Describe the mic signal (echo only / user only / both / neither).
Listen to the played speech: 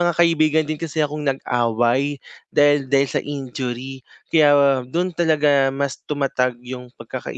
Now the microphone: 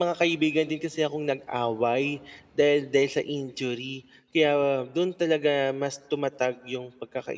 echo only